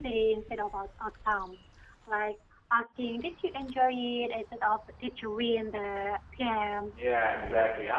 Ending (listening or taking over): taking over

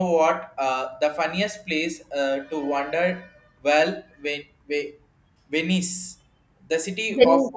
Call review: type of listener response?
listening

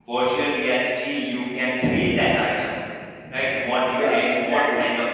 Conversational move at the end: listening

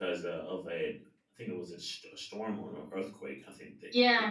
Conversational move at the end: taking over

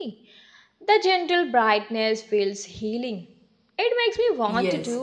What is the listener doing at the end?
taking over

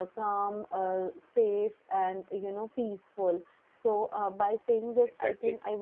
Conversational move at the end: listening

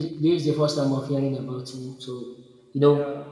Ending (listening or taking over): listening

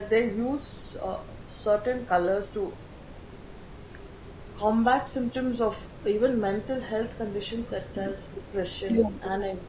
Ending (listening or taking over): listening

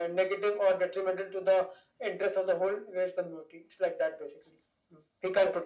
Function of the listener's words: taking over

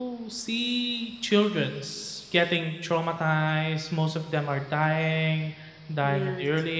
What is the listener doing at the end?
listening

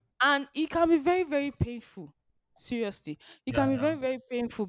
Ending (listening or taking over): listening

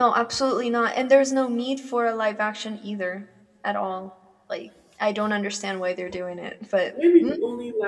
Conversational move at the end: taking over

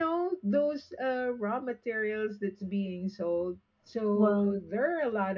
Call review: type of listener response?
listening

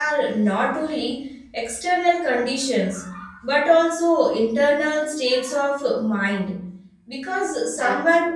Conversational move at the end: listening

